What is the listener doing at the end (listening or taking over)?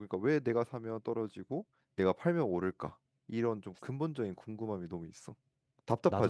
taking over